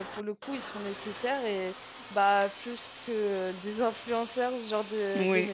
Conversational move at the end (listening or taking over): taking over